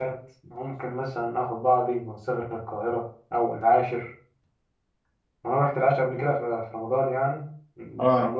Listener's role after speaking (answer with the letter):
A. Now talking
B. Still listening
B